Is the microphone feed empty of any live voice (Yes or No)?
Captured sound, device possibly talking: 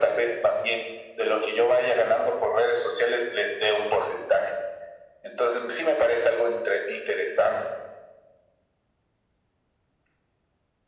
Yes